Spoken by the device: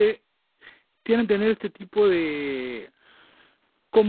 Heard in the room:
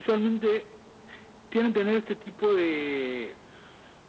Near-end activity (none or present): none